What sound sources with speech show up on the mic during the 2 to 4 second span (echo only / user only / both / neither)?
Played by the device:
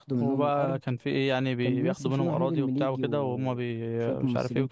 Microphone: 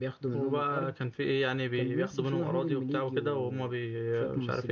echo only